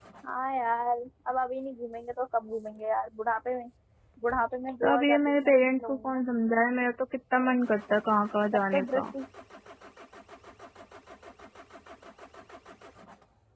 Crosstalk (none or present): present